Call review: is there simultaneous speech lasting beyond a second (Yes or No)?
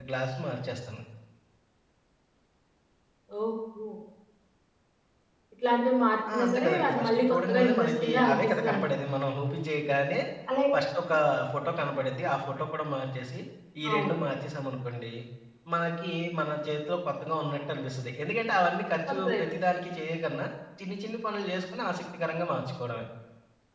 Yes